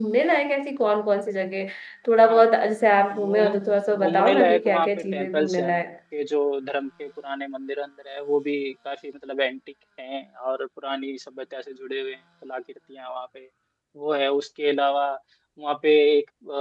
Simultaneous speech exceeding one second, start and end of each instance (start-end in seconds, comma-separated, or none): 4.0-5.7